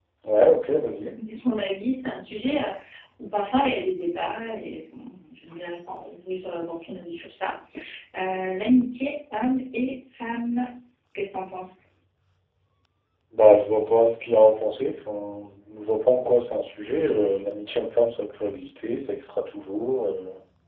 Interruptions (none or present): none